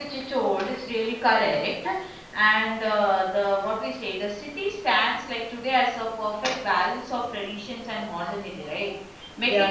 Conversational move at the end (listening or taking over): listening